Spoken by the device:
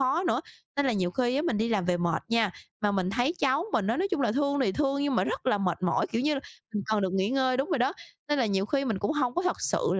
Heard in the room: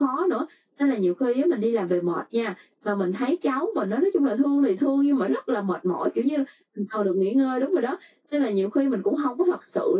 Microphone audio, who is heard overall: echo only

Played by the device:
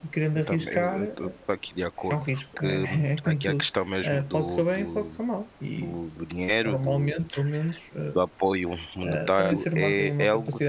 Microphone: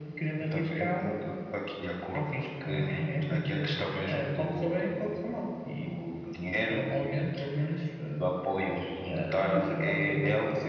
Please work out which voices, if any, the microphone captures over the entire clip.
echo only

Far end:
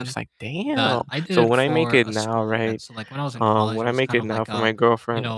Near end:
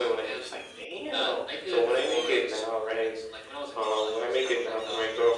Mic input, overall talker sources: echo only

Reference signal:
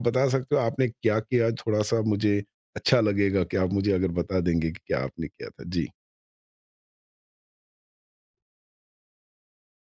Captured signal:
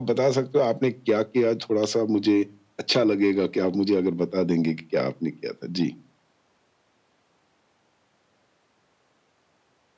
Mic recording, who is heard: echo only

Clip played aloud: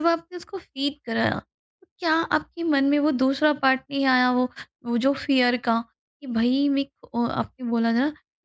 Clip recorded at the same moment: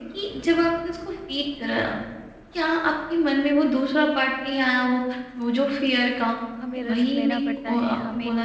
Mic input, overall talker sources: both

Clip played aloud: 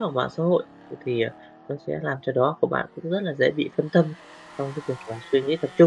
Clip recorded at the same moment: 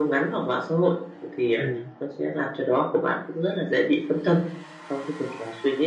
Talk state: both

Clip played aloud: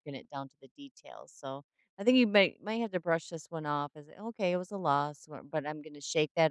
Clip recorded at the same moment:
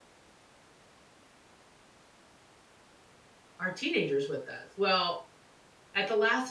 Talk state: user only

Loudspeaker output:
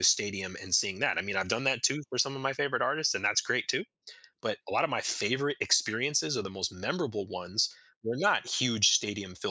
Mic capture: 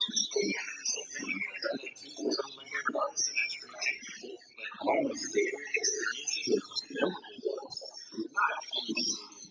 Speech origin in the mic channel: echo only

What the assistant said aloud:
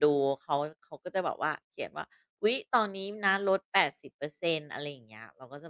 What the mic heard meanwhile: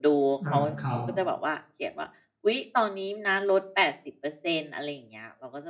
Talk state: both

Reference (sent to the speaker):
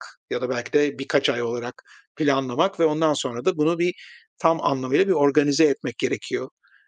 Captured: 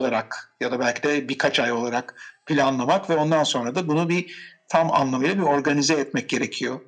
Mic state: echo only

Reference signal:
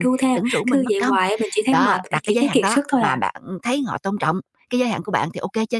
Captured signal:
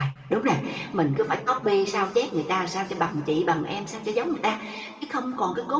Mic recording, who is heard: user only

